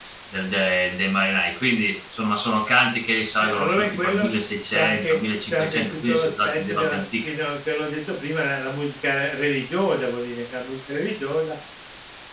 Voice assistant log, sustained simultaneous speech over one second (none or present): present